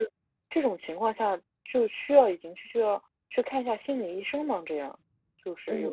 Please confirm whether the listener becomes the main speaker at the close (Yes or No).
Yes